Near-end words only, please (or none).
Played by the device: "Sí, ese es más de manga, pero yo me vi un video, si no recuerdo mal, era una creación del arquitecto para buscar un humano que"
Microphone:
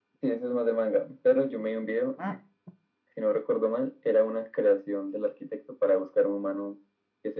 none